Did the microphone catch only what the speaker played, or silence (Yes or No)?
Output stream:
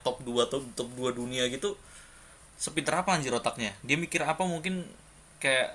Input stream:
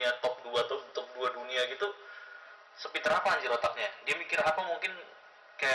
Yes